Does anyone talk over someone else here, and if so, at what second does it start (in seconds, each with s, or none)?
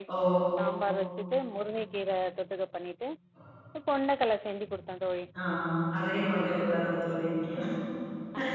none